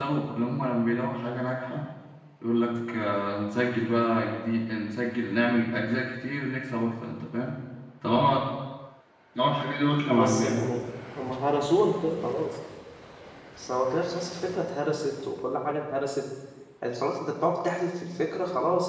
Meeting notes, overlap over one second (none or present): none